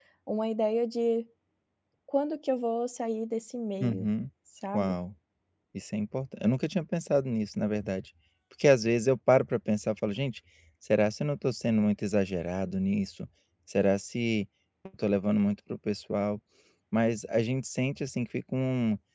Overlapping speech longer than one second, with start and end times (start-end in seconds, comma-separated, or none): none